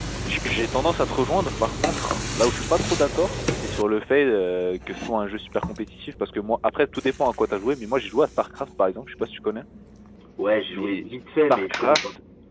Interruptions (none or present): present